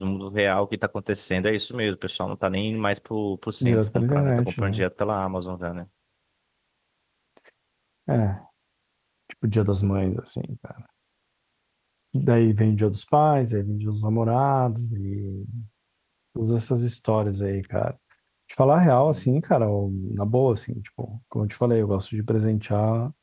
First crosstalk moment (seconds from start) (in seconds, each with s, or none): 3.6 s